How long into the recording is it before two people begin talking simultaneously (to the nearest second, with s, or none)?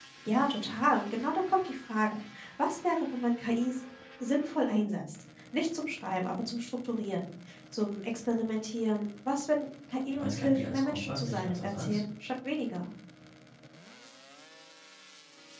10 s